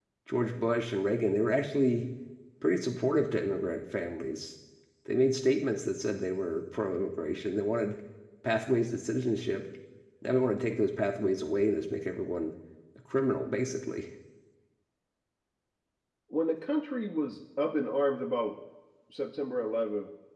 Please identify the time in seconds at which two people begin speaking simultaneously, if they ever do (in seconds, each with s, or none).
none